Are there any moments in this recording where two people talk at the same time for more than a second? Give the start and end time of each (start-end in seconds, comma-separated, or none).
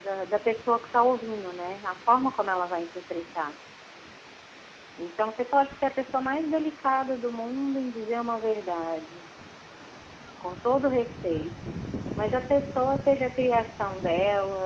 none